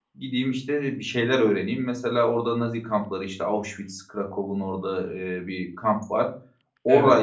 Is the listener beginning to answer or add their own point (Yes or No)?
No